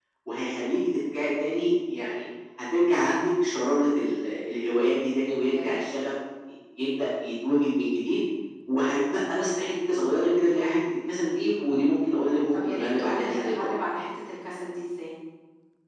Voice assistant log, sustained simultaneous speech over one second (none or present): present